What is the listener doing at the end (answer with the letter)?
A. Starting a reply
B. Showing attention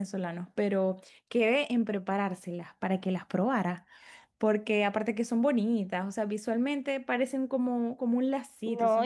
A